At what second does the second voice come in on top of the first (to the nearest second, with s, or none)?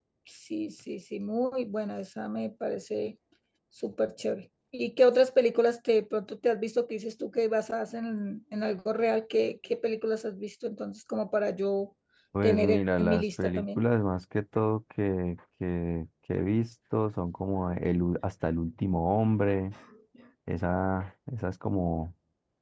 12 s